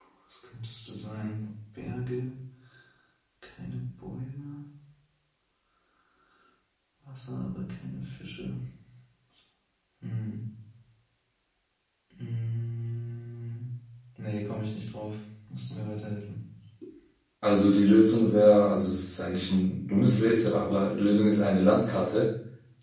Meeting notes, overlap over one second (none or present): none